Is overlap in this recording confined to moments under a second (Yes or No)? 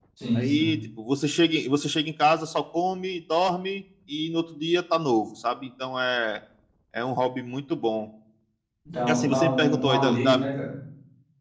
No